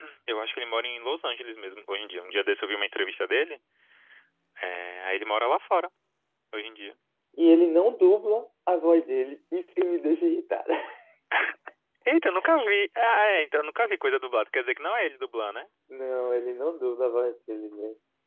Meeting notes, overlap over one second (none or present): none